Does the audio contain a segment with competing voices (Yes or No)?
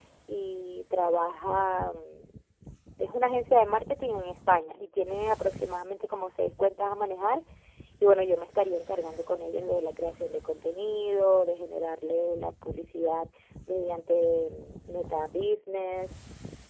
No